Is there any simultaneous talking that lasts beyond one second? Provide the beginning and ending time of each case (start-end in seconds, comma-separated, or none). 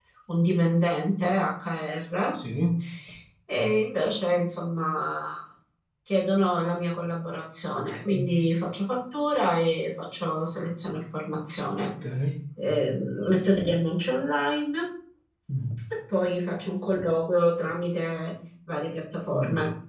none